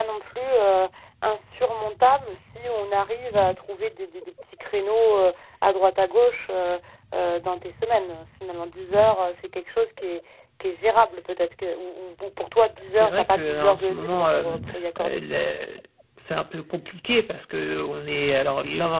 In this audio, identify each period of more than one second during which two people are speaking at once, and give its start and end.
13.0-14.6

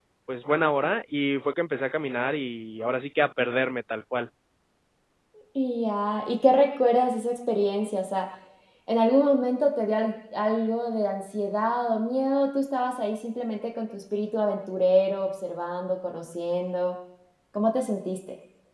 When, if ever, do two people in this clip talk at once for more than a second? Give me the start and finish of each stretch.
none

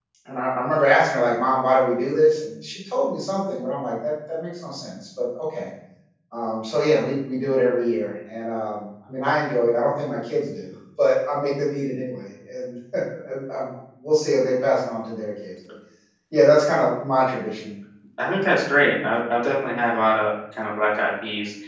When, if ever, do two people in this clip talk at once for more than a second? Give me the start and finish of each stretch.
none

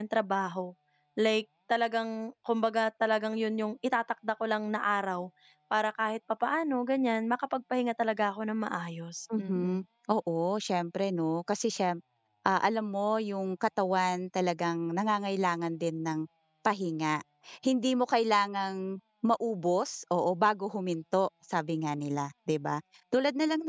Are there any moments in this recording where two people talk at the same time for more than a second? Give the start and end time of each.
none

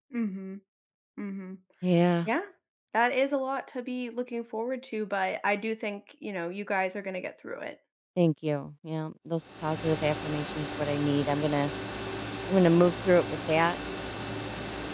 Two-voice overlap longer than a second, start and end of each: none

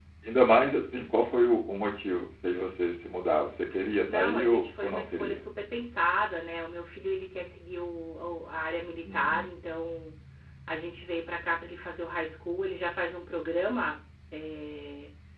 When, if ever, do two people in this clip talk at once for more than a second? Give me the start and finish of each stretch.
4.1-5.4

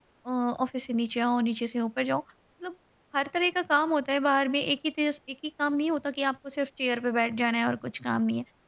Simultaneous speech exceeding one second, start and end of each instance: none

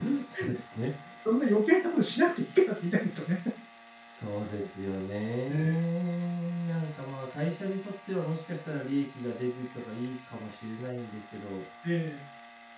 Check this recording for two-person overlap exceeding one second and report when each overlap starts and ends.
none

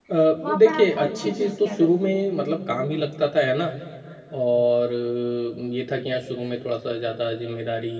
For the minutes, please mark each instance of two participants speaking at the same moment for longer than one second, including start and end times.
0.6-2.3

